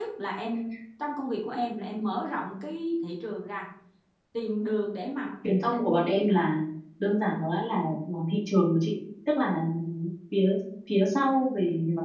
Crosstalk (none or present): none